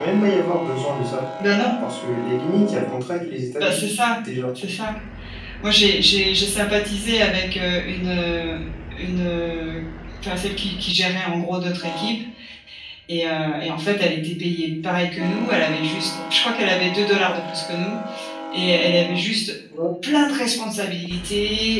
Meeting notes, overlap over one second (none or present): none